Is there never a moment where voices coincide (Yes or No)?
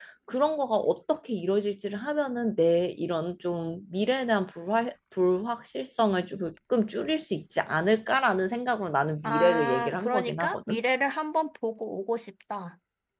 No